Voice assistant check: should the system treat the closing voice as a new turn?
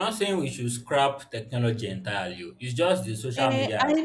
Yes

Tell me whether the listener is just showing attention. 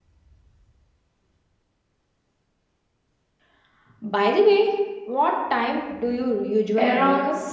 No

